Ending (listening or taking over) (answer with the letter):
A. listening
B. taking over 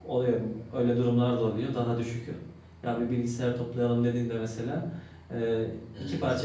A